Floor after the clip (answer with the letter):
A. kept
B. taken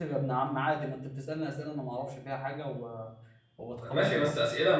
B